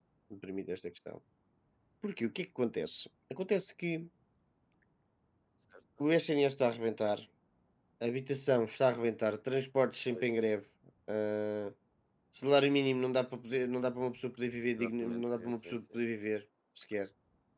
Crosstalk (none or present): present